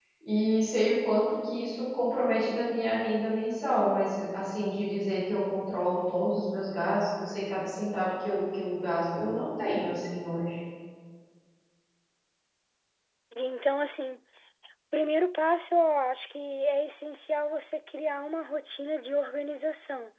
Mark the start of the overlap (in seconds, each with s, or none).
none